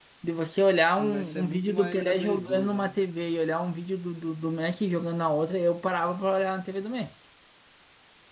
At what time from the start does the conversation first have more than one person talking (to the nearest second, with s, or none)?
1 s